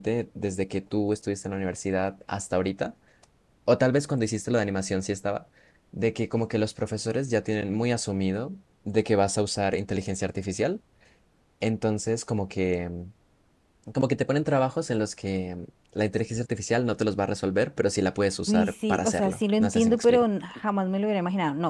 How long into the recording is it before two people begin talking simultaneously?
18.5 s

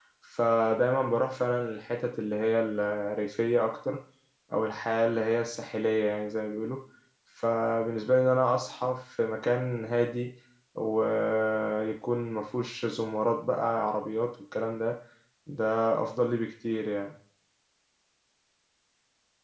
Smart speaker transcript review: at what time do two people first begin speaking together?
none

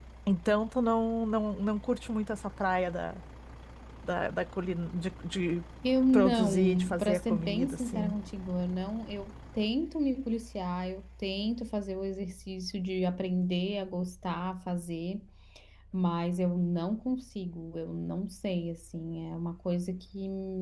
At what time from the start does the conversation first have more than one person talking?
6.1 s

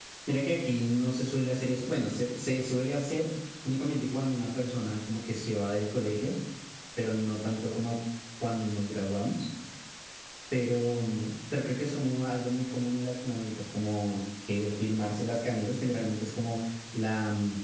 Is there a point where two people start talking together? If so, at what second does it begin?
none

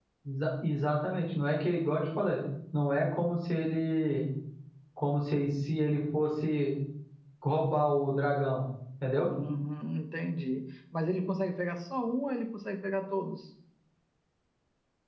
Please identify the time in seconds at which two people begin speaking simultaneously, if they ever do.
none

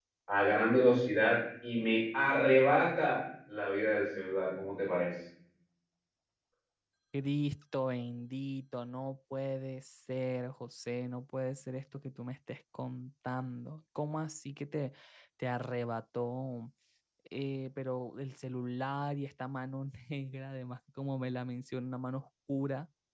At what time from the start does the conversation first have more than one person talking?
none

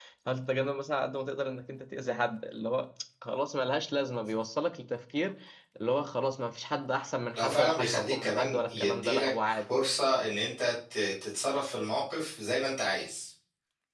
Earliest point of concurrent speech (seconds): 7.4 s

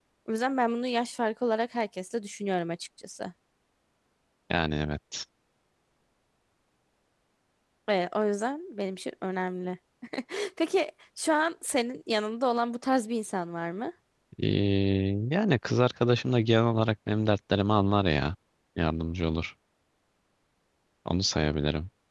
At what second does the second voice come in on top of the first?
none

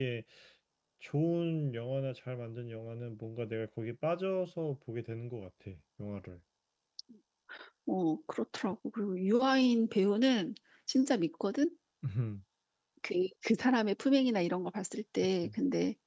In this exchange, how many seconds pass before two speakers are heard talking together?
none

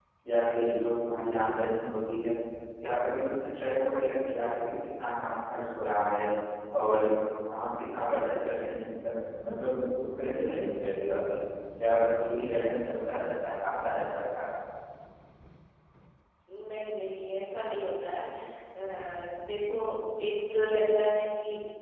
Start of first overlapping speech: none

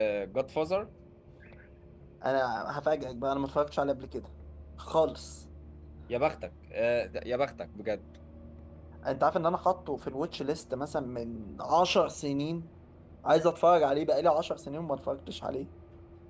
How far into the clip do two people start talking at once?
none

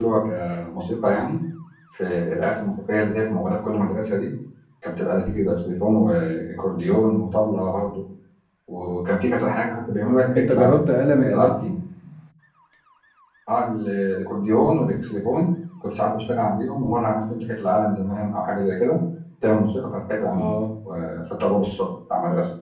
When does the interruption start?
10.4 s

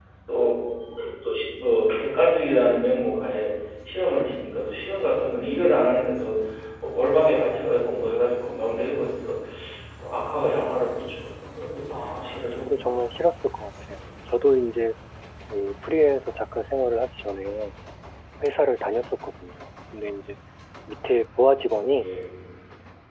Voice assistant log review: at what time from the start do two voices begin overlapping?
11.9 s

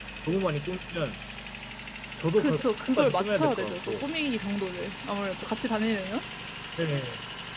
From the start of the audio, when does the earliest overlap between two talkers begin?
2.4 s

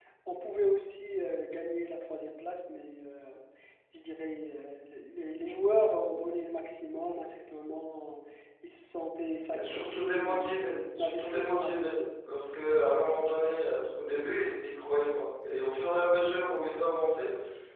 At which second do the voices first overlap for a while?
9.5 s

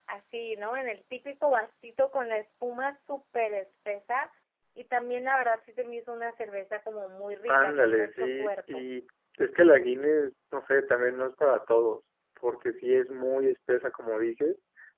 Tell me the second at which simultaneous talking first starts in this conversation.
7.5 s

